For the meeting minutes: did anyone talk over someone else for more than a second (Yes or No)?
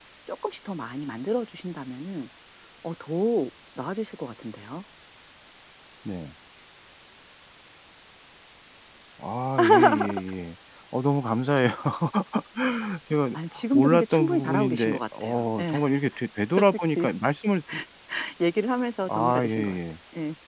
Yes